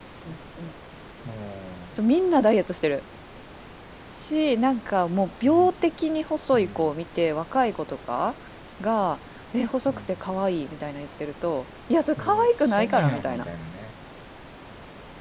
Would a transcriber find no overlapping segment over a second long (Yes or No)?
No